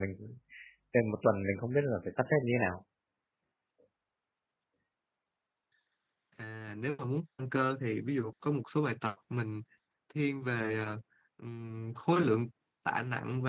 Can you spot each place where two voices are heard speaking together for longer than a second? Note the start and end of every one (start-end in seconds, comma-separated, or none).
none